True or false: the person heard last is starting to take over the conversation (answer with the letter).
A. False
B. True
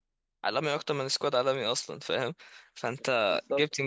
A